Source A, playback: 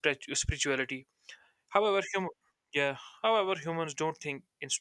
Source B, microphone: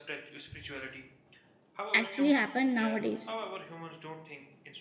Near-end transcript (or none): actually happened nowadays